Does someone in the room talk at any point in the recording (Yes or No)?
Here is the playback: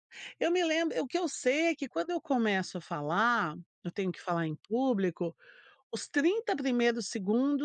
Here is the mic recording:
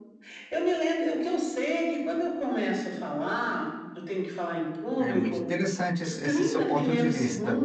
Yes